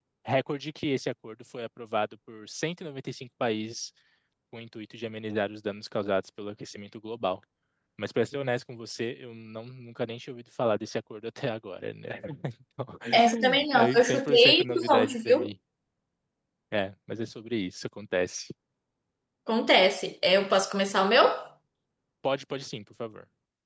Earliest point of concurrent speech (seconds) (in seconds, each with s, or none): 13.1 s